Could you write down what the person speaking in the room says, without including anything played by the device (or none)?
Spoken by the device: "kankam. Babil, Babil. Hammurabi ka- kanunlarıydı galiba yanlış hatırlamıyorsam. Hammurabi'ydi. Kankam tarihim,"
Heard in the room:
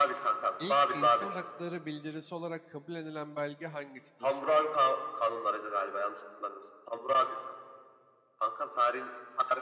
İlk insan hakları bildirisi olarak kabul edilen belge hangisidir?